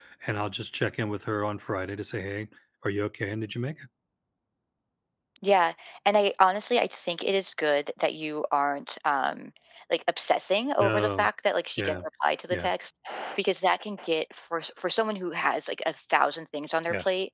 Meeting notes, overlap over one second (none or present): none